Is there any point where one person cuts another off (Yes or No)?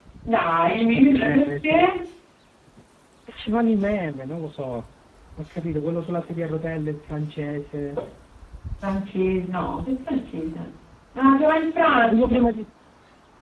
Yes